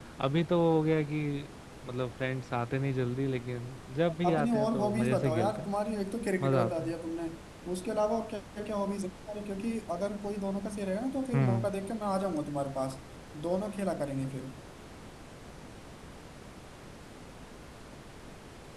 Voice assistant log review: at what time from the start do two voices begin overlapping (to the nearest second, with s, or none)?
4 s